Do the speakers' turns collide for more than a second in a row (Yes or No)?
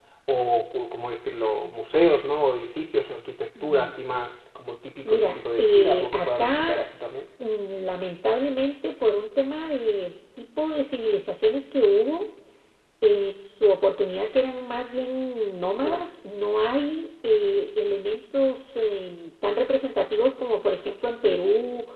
Yes